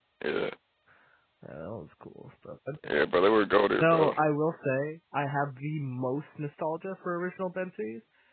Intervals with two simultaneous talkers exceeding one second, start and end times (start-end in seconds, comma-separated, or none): none